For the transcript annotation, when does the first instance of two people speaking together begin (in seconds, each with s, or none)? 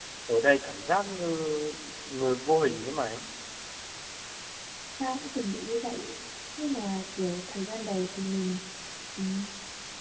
none